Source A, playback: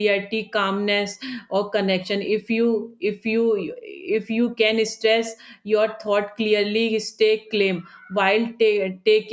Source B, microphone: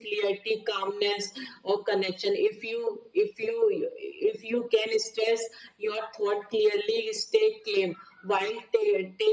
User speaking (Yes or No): No